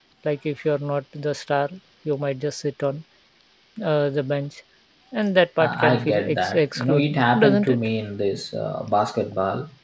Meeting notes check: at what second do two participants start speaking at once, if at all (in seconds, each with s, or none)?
5.6 s